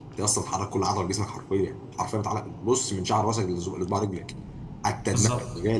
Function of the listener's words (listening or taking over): listening